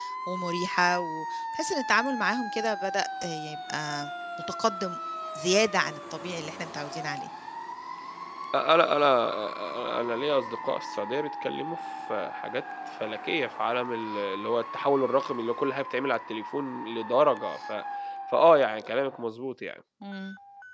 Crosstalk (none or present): none